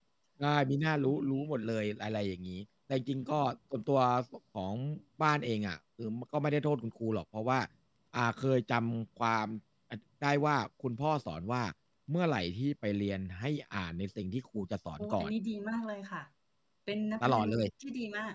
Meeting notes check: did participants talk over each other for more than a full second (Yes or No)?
No